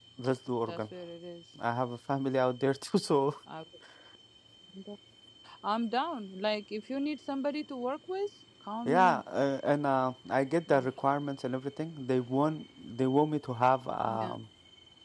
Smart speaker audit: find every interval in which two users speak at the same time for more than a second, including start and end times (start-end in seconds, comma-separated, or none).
none